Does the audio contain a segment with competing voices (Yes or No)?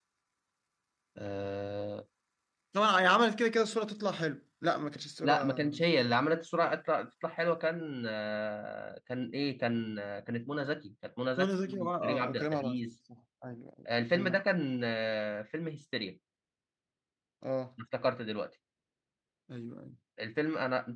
Yes